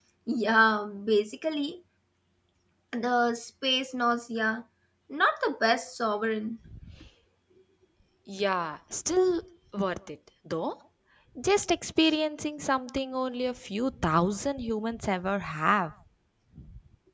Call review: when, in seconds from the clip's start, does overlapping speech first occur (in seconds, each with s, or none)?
none